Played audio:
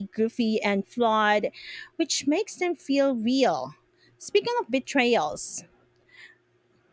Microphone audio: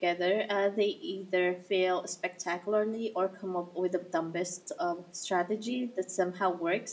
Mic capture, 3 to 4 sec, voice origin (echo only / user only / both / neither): user only